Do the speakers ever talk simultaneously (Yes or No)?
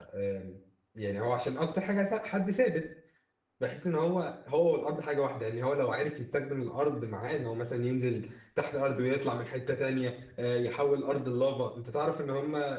No